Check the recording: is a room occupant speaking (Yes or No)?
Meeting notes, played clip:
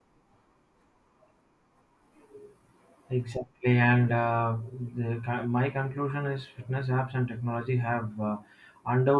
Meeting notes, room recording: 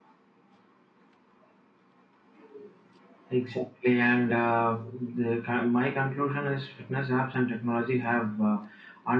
No